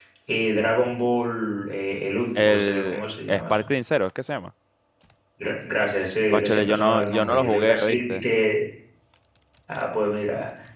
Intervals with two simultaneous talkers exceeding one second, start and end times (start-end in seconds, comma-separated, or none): 2.4-3.5, 6.3-8.2